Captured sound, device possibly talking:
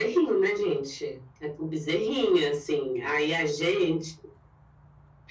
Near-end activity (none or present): none